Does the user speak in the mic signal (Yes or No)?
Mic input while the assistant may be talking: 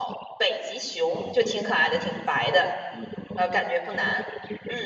Yes